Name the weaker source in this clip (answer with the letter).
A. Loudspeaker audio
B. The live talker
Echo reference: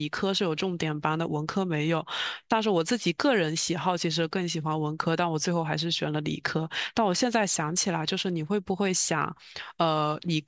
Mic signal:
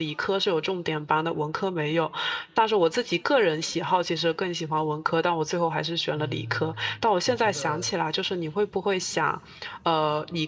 B